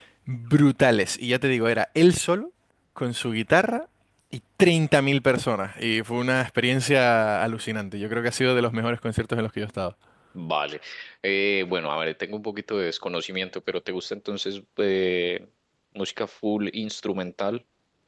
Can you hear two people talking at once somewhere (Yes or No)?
No